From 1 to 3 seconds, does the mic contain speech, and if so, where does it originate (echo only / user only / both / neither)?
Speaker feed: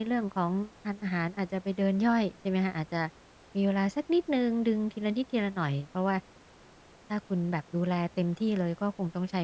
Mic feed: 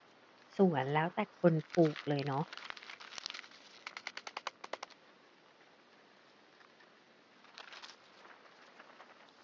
user only